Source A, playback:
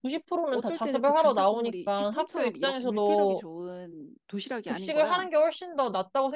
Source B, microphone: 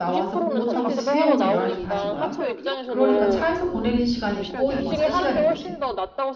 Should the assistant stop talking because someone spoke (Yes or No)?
Yes